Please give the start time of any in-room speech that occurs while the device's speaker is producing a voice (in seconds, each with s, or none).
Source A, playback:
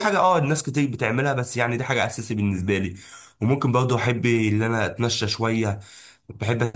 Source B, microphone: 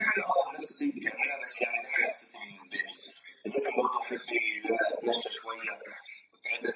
none